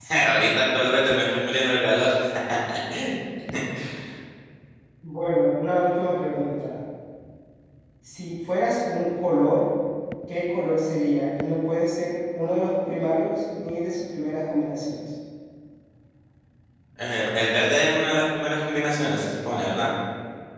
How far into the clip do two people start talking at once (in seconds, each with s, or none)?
none